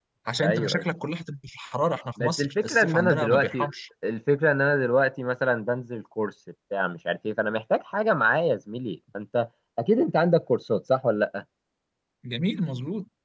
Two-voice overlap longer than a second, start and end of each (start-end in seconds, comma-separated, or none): 2.2-3.7